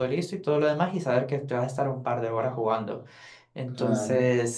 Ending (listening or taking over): listening